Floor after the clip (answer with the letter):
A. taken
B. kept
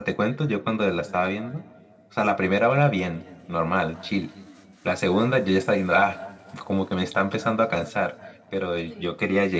B